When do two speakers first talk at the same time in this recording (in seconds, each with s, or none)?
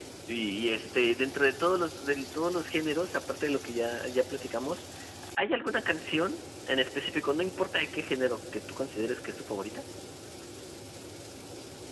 none